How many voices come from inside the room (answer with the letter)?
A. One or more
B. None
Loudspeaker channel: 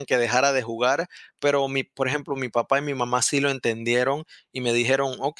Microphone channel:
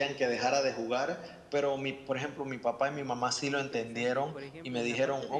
A